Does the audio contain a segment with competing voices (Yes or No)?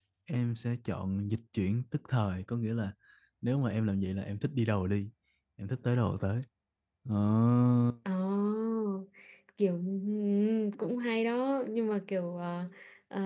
No